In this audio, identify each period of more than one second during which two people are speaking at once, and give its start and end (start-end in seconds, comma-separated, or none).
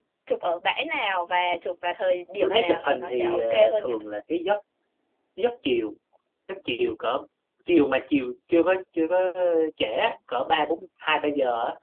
2.4-3.9